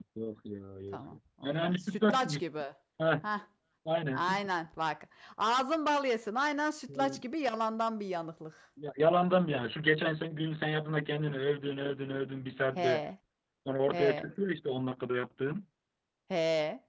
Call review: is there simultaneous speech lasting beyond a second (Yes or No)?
Yes